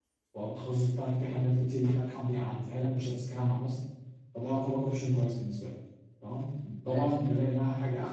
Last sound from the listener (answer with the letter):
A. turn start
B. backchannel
B